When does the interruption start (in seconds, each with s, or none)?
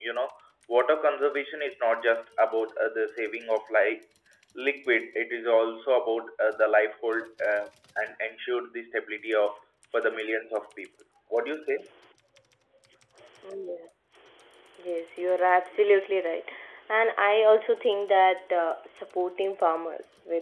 none